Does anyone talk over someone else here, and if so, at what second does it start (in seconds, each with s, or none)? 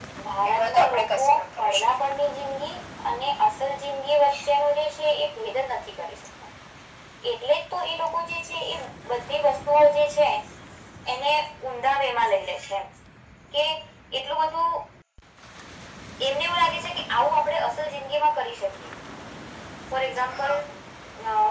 0.5 s